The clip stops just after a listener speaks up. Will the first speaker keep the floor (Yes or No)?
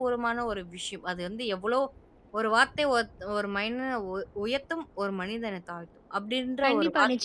No